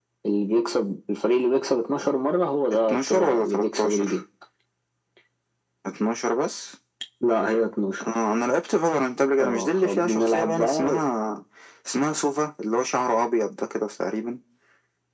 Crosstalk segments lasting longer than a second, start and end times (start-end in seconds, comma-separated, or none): 2.9-4.1, 9.4-11.1